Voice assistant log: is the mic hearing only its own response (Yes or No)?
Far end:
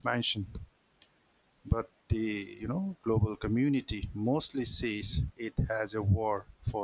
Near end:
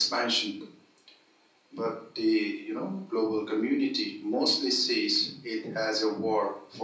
Yes